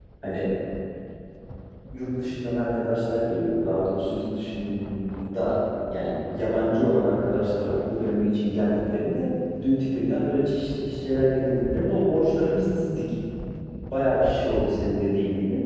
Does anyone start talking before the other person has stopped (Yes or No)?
No